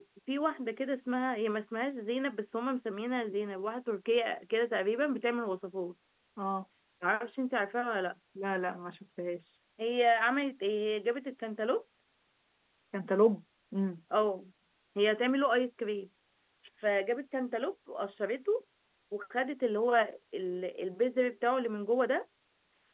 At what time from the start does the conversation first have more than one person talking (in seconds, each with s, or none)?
none